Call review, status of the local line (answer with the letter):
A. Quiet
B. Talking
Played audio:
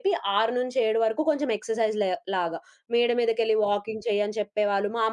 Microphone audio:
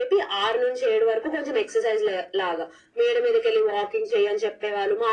A